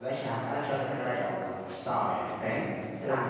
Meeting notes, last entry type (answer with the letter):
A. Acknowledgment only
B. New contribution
A